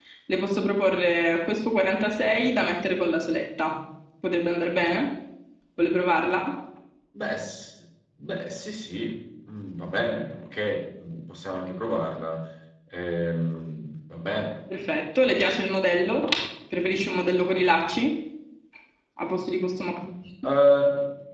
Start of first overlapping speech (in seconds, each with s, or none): none